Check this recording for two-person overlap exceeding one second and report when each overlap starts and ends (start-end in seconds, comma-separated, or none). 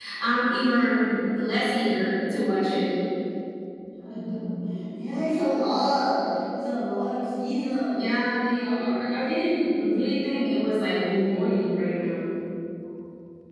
none